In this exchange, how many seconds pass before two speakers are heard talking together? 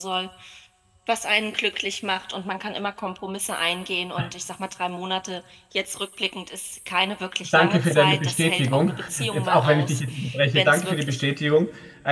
7.5 s

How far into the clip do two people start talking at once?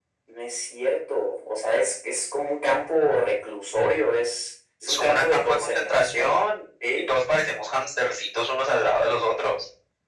4.8 s

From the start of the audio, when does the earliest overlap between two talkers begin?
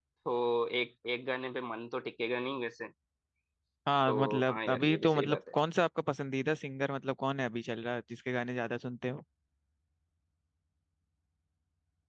4.1 s

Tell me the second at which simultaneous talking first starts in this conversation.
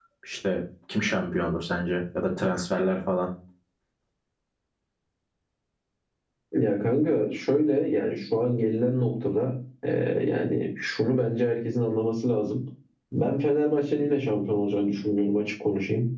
none

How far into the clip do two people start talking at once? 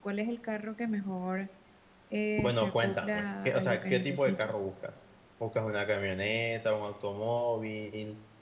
2.4 s

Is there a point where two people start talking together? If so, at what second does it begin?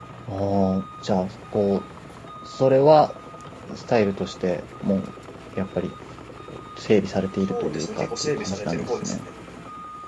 7.5 s

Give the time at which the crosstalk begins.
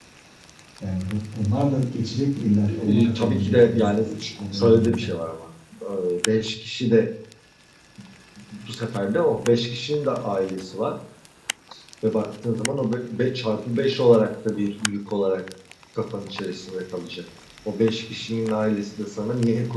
2.7 s

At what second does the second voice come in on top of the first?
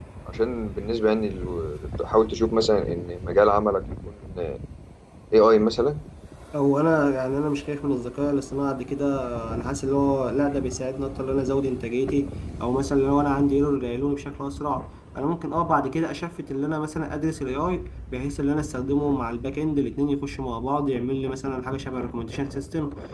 none

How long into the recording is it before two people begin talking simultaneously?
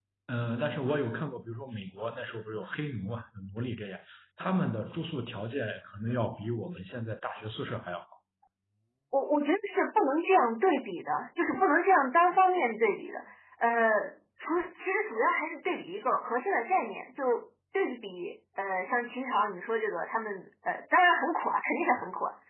none

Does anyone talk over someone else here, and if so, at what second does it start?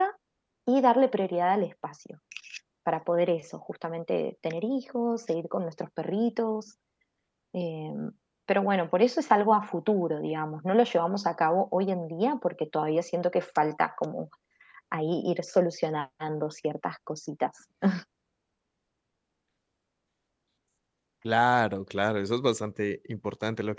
none

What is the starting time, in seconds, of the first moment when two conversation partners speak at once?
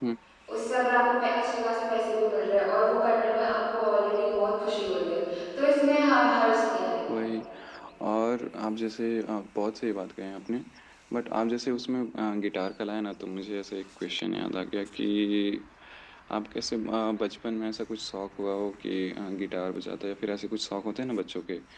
none

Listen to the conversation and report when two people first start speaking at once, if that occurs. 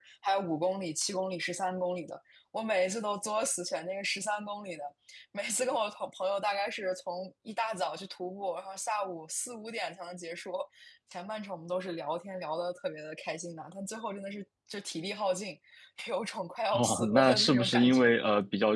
16.7 s

